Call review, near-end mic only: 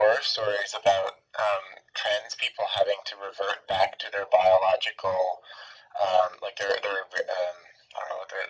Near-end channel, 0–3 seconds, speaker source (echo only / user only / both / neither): echo only